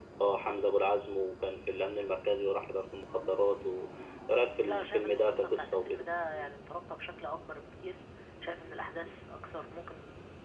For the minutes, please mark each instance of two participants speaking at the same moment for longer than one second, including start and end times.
4.7-6.0

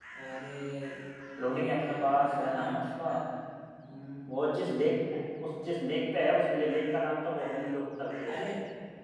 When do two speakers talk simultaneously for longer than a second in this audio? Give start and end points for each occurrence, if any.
1.5-3.1

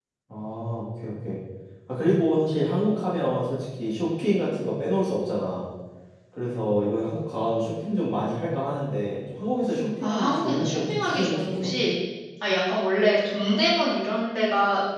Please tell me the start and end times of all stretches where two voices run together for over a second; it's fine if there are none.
10.0-11.5

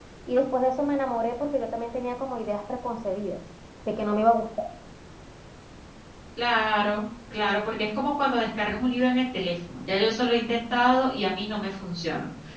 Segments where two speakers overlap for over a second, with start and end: none

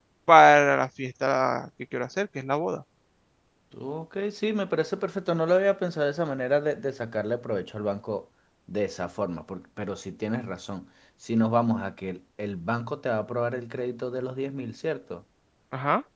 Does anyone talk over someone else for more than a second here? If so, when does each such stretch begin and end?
none

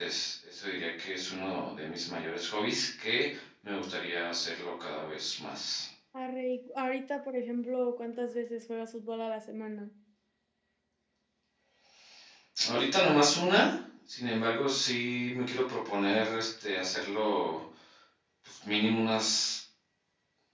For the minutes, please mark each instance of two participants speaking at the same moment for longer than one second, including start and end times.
none

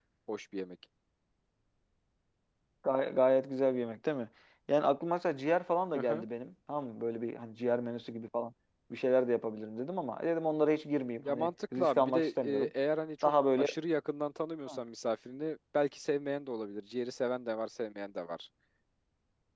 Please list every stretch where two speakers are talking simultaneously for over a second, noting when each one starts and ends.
11.2-12.7

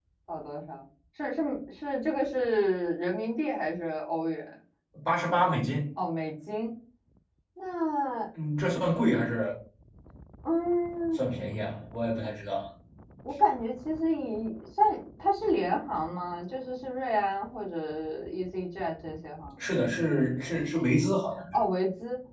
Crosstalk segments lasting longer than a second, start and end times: none

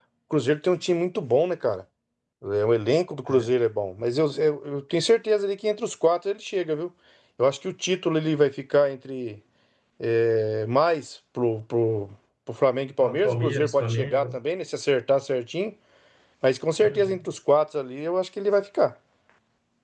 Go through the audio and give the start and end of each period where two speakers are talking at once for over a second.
13.0-14.3

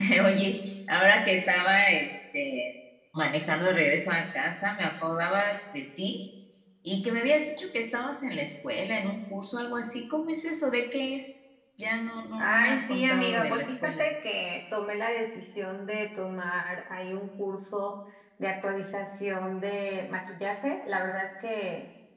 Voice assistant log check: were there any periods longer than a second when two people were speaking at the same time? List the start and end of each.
12.4-14.0

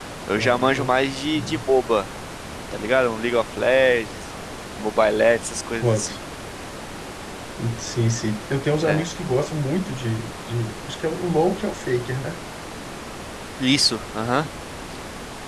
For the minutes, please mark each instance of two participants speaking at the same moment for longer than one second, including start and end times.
none

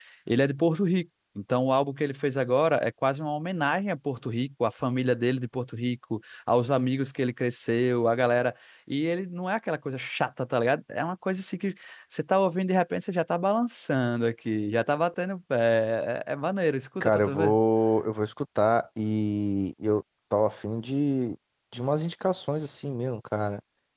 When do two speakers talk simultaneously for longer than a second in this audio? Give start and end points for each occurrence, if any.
none

